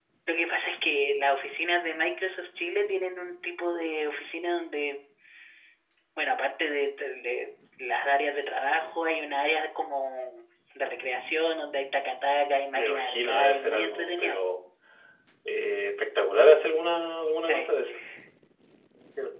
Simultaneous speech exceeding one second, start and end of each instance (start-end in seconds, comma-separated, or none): 12.7-14.4